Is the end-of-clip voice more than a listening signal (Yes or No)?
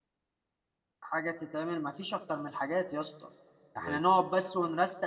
No